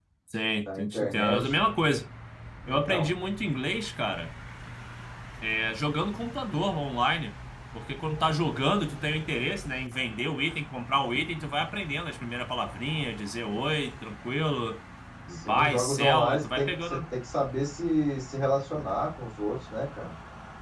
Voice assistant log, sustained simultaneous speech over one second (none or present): present